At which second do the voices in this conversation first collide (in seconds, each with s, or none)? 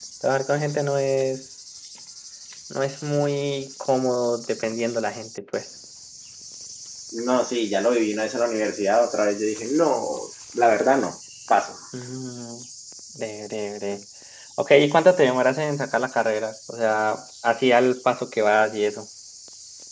none